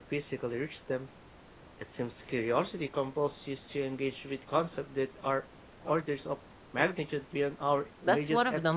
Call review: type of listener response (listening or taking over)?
taking over